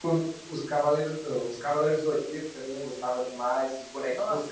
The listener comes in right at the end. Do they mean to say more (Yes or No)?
Yes